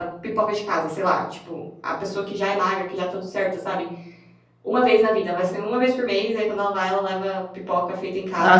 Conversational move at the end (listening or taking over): taking over